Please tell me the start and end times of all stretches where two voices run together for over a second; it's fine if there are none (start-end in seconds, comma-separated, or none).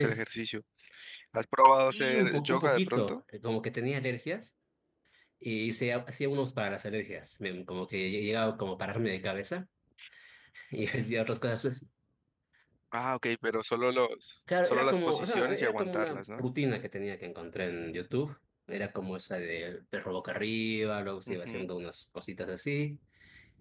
1.9-3.2, 14.6-16.4